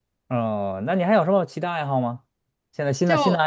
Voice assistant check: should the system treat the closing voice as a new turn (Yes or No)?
No